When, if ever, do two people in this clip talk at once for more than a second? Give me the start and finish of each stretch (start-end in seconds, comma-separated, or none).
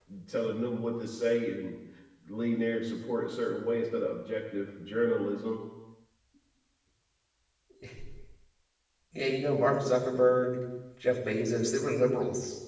none